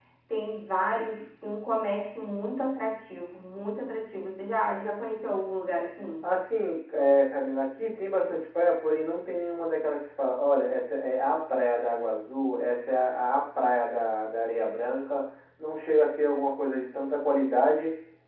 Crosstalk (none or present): none